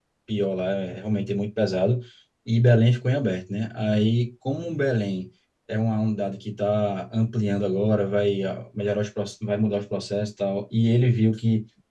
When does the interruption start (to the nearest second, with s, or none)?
none